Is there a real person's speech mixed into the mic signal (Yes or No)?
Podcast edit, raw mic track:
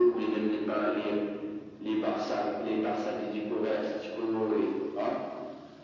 No